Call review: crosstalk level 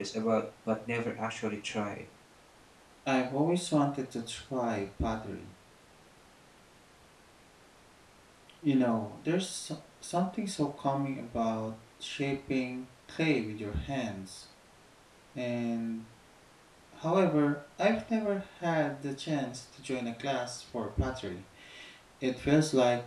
none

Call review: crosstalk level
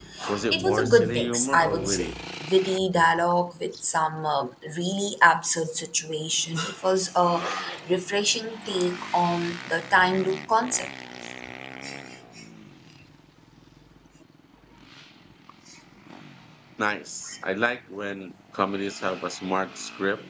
present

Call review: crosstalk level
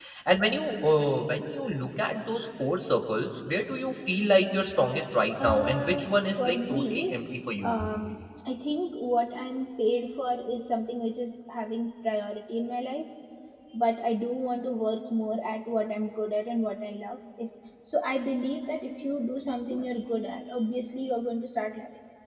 present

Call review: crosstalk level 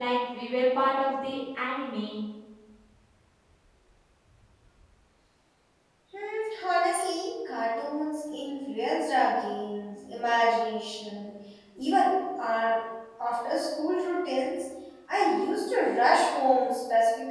none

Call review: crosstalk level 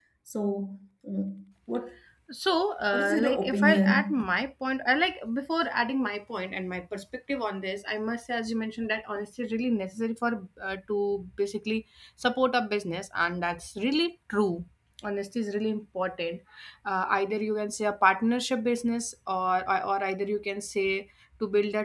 present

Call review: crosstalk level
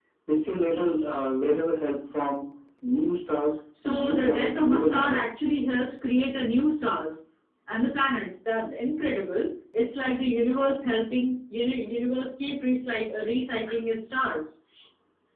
present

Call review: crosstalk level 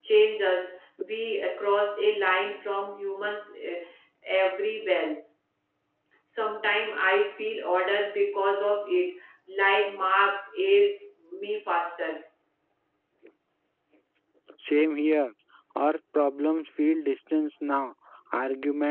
none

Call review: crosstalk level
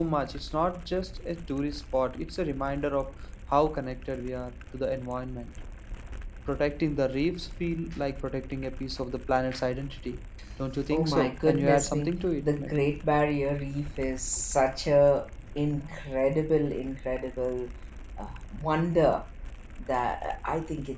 present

